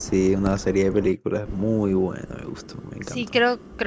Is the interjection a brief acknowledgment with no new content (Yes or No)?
No